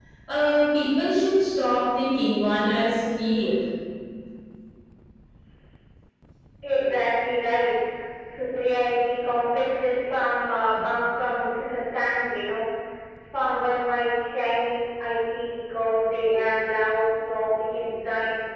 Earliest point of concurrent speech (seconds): none

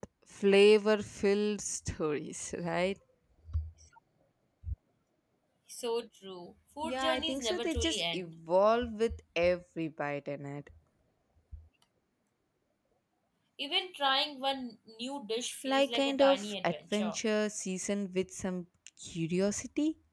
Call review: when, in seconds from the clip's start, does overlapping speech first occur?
6.8 s

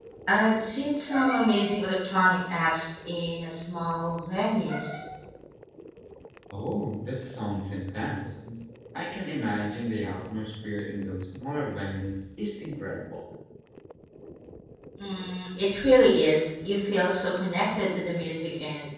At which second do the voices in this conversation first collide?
none

